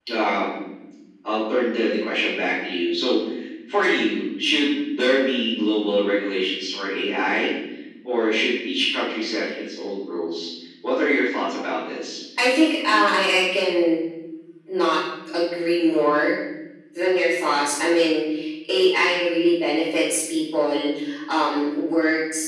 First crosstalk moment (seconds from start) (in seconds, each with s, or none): none